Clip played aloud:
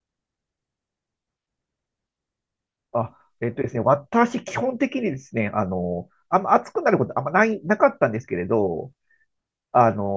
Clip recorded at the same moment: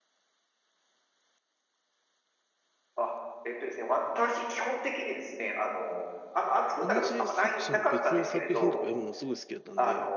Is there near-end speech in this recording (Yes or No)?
Yes